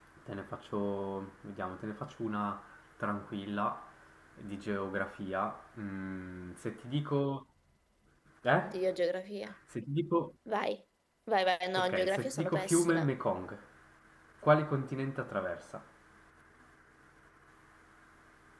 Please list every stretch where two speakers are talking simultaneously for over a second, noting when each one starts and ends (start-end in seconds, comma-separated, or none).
11.8-13.1